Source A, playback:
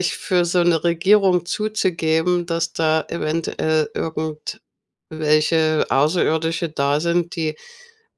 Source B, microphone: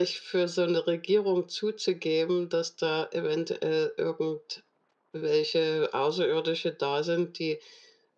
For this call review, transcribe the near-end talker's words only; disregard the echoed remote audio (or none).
none